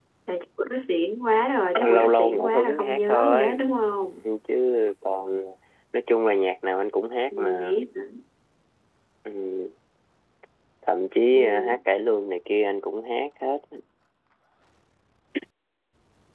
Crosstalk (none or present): present